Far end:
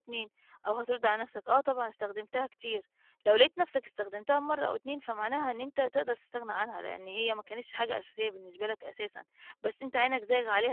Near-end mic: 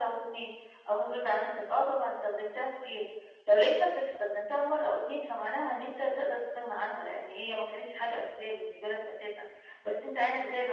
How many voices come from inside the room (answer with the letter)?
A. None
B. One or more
A